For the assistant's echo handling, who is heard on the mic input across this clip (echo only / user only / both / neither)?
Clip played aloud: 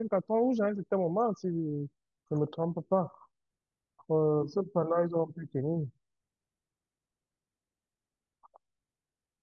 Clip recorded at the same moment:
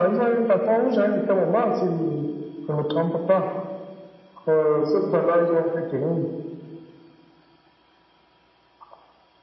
echo only